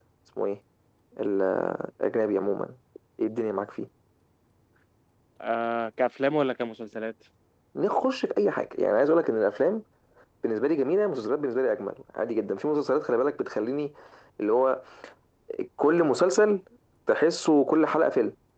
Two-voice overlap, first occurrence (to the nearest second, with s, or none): none